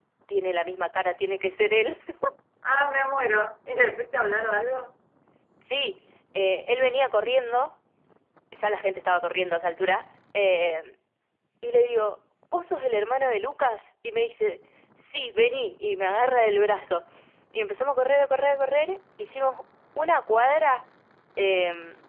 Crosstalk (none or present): none